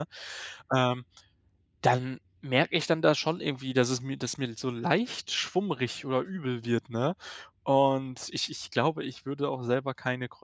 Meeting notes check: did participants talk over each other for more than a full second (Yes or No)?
No